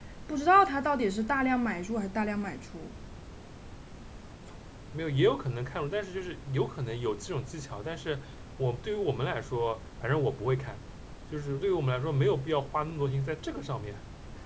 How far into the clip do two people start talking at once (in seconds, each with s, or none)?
none